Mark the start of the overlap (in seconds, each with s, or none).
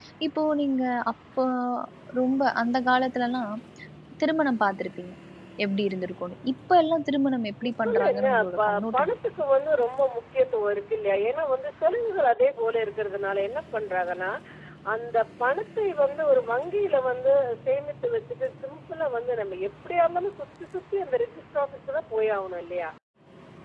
7.6 s